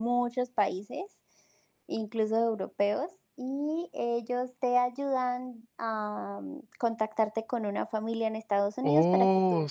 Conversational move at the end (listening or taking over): taking over